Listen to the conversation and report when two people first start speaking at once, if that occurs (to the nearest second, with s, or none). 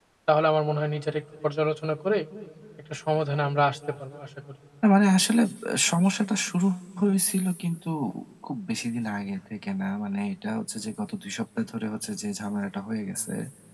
none